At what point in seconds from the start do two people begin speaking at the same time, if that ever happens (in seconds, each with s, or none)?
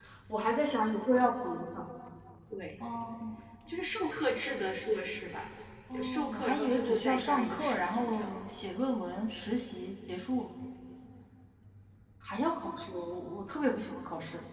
5.9 s